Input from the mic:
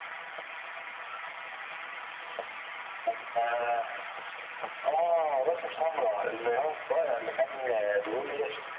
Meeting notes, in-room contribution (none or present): none